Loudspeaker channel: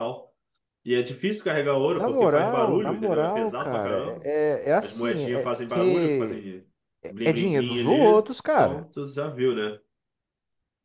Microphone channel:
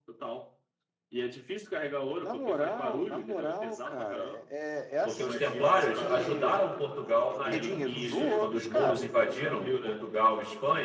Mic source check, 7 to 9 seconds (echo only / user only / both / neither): both